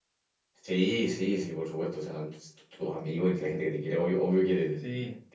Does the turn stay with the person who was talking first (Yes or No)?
Yes